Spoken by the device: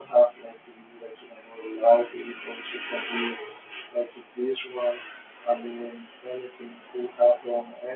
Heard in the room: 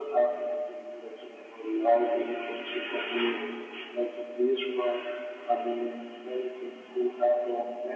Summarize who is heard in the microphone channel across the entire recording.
echo only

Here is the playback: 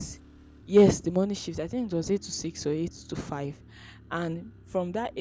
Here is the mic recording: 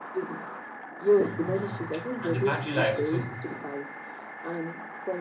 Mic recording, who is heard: both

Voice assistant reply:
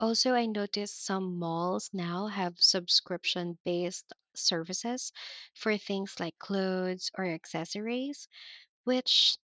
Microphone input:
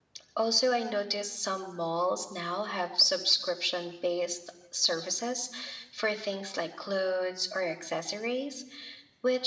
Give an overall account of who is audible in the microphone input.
echo only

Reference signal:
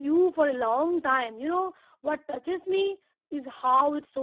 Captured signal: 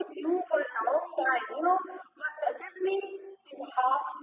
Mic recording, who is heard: echo only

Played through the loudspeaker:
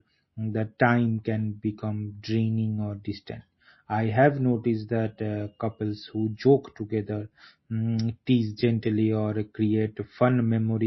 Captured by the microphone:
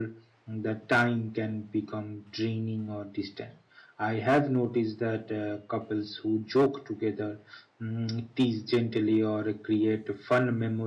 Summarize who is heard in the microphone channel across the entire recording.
echo only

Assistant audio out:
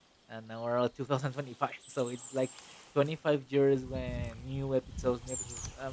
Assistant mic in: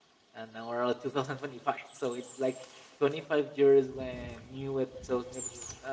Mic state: echo only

